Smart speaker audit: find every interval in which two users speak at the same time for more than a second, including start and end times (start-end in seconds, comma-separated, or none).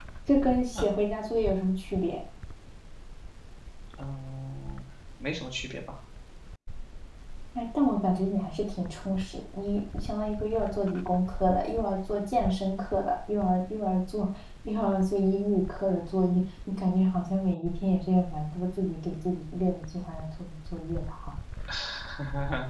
none